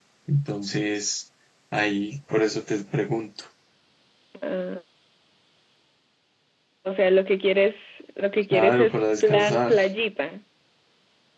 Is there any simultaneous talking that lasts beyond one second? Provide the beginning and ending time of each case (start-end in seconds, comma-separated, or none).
8.5-9.7